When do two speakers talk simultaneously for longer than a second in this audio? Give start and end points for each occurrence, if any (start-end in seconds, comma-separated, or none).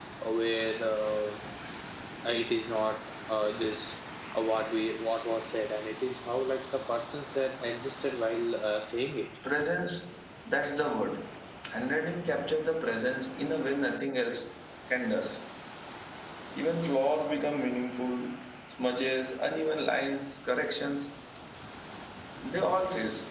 none